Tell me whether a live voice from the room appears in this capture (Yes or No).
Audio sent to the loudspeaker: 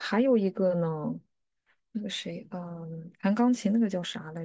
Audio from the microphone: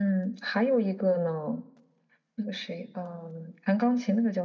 No